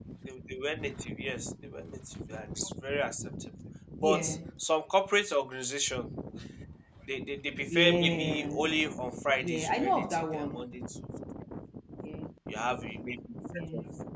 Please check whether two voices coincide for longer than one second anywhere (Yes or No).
Yes